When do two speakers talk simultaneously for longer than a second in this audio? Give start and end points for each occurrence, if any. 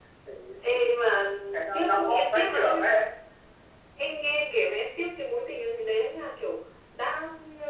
1.7-3.0

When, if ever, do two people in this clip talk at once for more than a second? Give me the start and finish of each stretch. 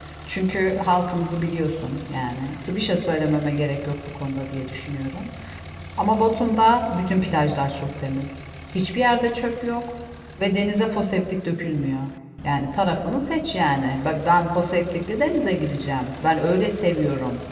none

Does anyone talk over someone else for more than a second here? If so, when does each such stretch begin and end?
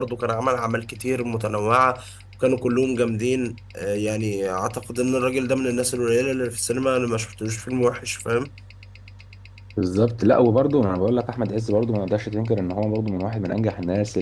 none

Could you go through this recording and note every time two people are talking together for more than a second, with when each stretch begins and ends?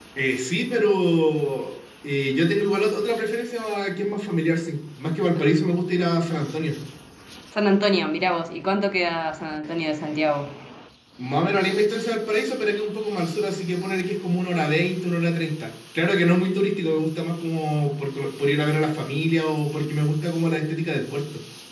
none

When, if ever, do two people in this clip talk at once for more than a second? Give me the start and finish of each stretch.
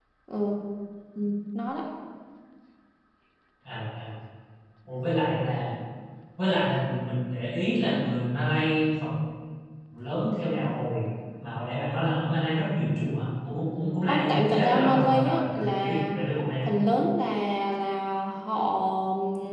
14.1-16.1

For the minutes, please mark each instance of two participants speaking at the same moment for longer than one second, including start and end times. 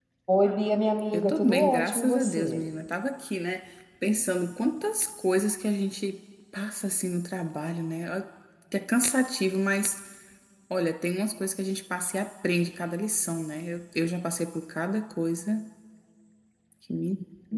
1.1-2.6

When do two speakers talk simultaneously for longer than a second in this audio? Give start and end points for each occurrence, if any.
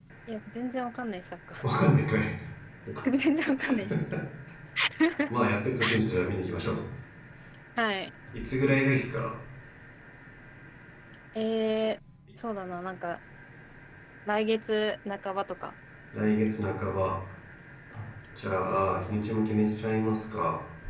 none

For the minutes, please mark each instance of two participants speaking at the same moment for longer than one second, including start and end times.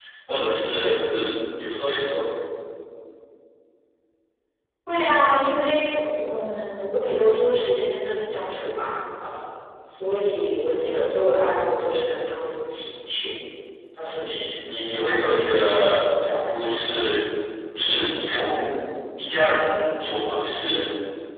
none

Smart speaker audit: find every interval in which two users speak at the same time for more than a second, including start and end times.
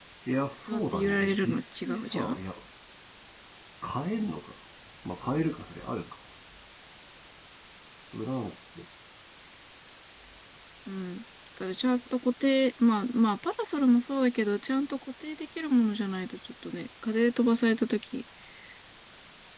0.6-2.4

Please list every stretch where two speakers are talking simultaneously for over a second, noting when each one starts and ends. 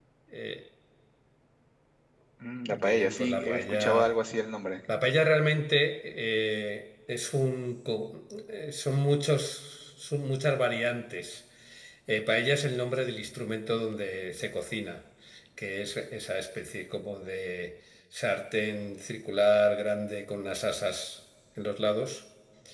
2.6-4.1

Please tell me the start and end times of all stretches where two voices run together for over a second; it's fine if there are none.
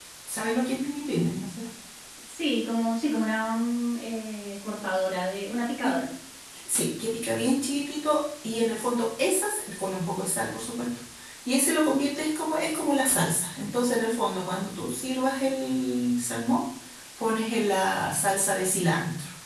none

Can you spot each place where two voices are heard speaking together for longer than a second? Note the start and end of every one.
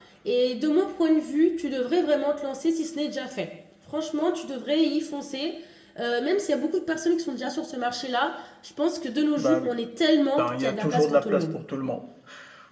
10.4-11.6

